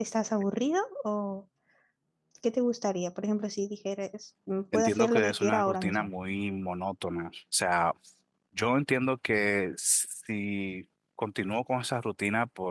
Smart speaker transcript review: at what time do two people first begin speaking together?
4.7 s

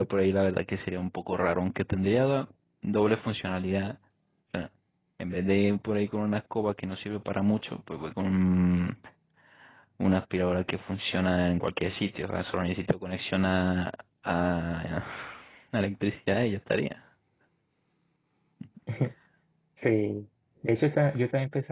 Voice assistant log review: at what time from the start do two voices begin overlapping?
none

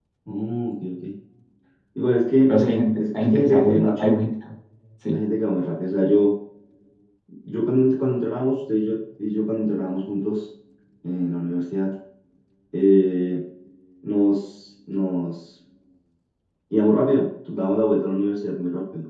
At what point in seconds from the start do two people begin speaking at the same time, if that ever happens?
2.5 s

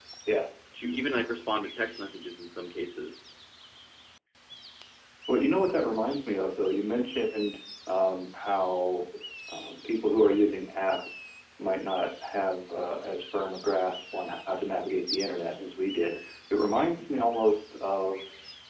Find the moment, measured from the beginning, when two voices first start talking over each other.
none

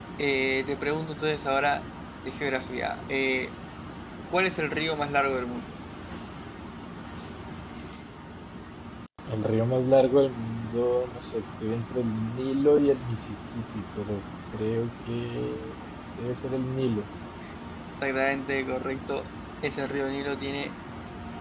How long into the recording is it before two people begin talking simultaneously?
none

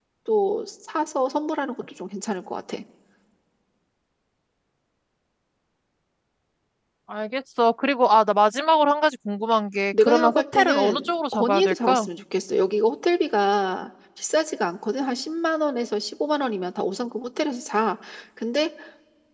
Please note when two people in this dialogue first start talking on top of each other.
9.9 s

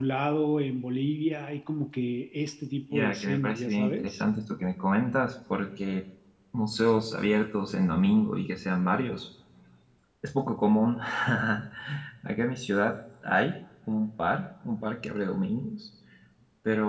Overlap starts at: 2.9 s

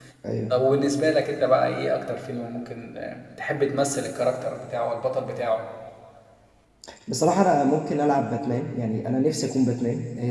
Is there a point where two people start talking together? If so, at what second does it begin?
none

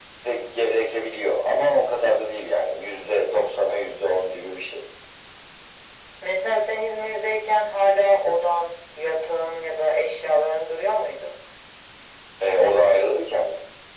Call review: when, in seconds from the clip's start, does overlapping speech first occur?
none

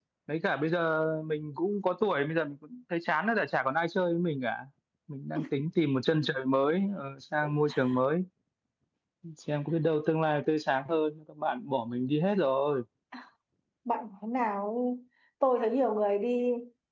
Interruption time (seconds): none

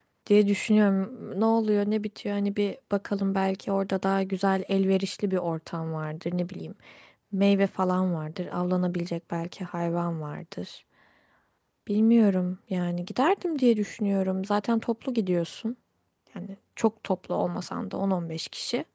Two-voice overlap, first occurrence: none

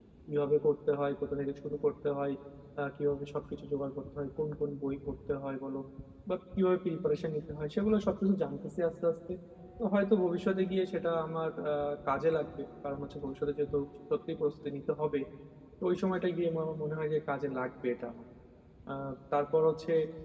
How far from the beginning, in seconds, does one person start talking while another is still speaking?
none

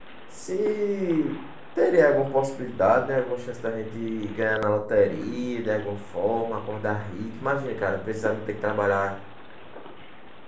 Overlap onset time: none

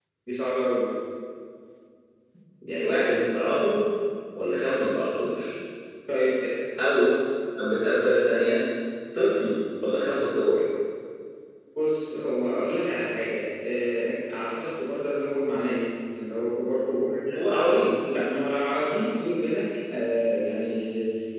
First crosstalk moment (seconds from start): none

